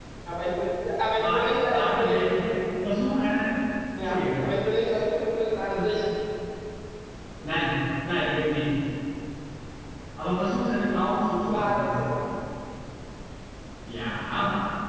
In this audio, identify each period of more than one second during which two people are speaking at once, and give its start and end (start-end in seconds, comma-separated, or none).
1.1-2.4